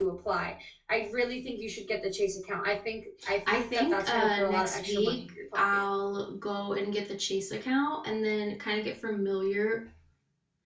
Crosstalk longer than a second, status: present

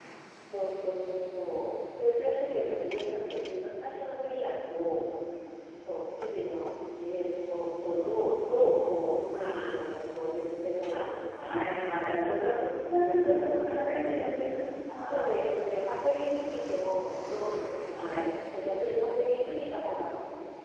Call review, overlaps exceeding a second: none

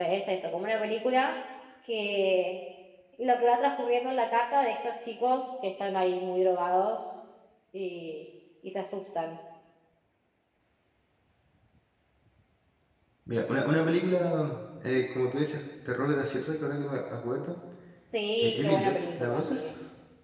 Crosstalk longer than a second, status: present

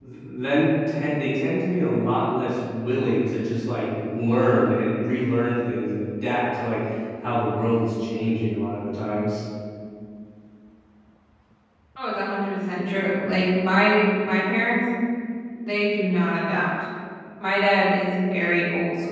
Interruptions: none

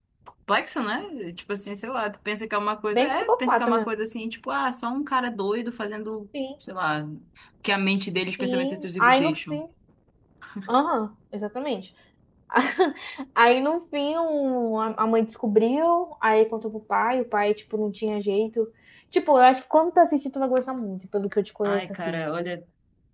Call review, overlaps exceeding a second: present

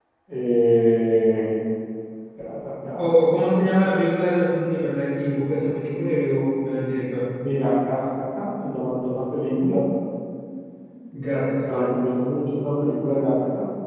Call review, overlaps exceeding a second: none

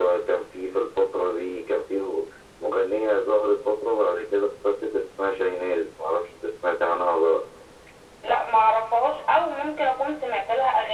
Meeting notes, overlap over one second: none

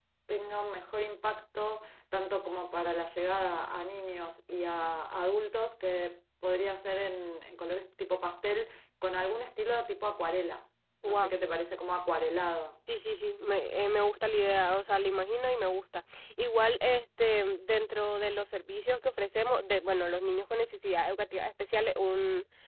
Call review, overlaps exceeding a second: none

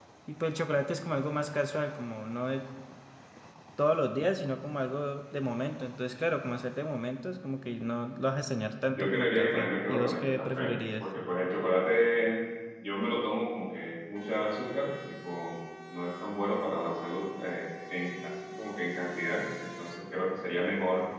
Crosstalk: present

